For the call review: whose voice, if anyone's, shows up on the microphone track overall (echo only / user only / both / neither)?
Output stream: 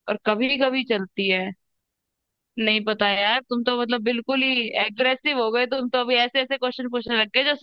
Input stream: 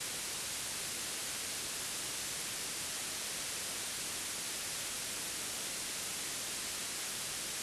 neither